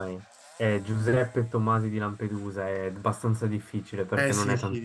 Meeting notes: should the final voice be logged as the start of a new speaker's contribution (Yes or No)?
Yes